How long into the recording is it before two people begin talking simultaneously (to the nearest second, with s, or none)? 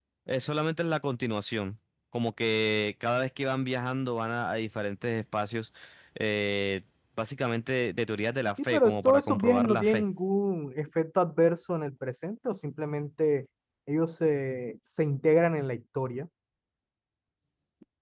9 s